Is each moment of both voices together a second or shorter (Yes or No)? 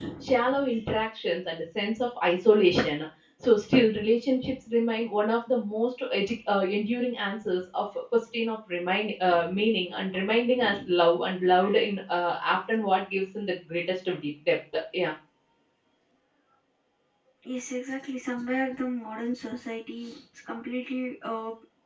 Yes